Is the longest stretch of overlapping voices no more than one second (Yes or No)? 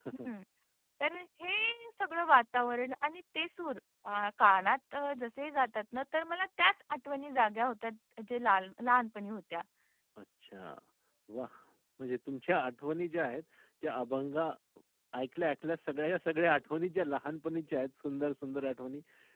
Yes